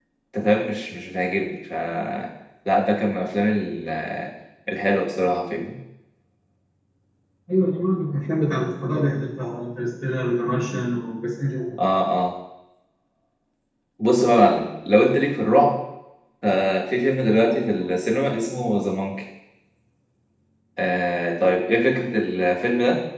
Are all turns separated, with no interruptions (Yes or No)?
Yes